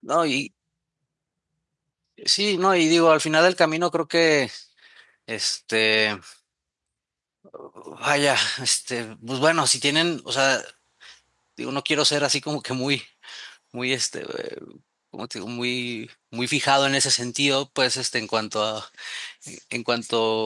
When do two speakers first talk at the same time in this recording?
none

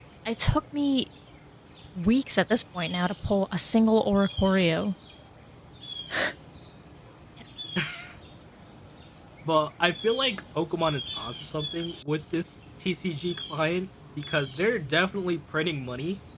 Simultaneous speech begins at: none

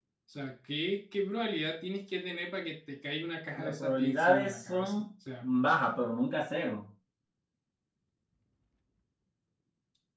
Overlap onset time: 3.6 s

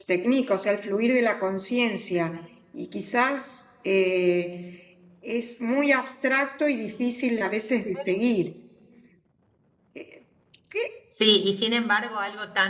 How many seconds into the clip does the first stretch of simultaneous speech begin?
none

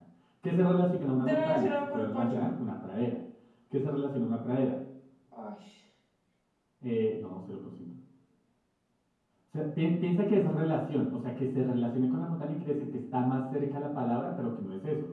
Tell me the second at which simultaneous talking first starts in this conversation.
1.2 s

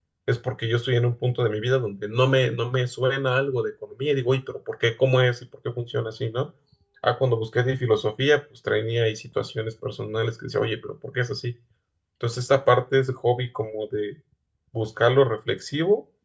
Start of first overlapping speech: none

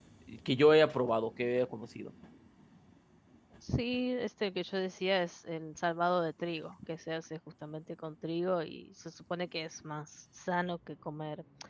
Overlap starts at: none

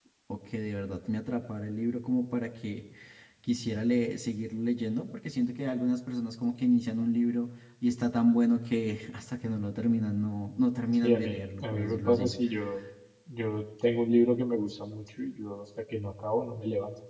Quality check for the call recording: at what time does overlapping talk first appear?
11.0 s

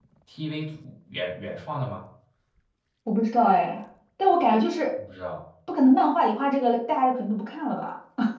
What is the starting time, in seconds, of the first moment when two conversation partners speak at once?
none

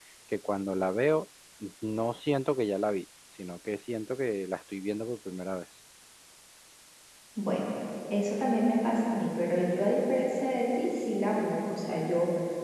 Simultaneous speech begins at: none

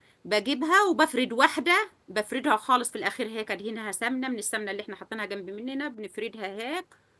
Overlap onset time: none

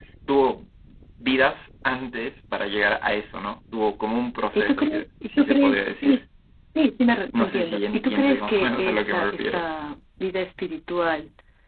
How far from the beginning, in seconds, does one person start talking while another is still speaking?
4.5 s

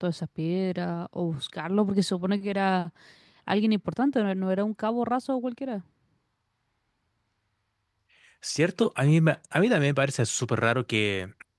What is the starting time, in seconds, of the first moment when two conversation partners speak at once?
none

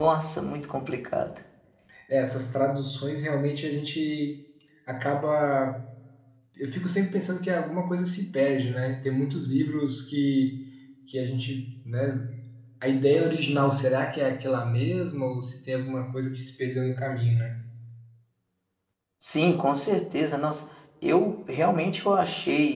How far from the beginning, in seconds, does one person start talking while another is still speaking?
none

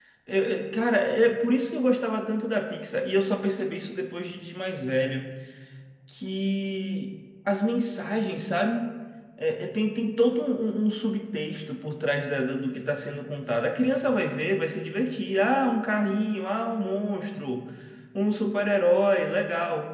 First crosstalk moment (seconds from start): none

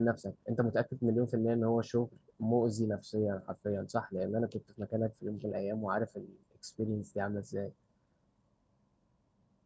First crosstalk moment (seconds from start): none

